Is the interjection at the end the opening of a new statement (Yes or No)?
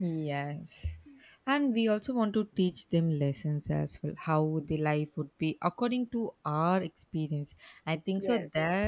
No